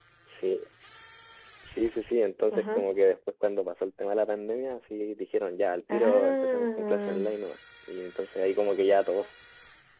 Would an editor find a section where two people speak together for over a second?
Yes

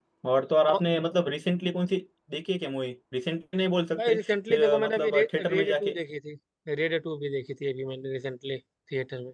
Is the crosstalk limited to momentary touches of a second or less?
No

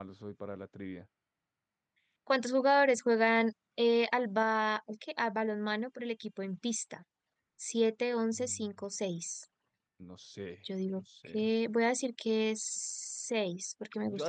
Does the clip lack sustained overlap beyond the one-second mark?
Yes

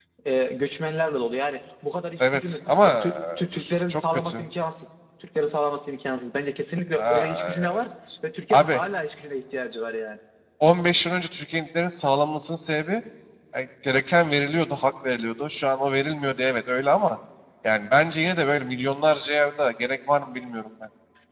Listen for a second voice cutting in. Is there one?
Yes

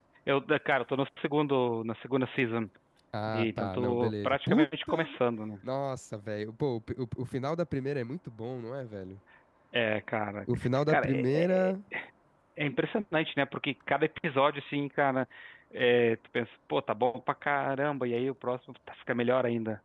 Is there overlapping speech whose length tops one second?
Yes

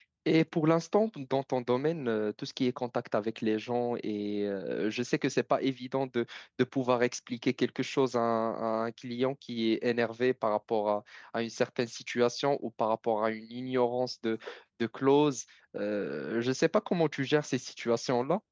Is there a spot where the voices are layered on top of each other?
No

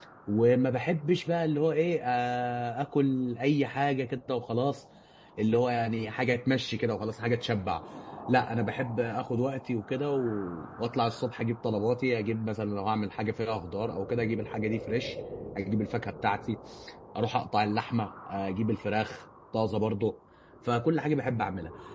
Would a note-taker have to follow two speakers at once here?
No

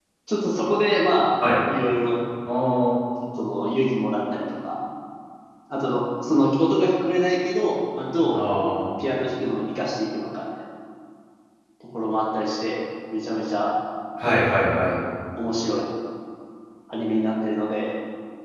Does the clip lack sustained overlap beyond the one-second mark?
Yes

